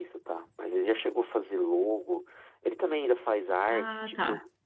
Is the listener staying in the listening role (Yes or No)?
Yes